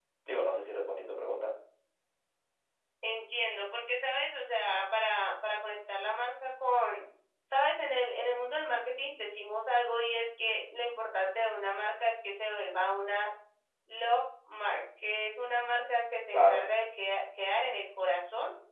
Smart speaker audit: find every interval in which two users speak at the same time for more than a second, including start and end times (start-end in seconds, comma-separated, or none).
none